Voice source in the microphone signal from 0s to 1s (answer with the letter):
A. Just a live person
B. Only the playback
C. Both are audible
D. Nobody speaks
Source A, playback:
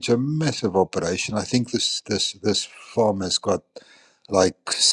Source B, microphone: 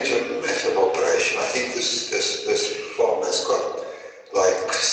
B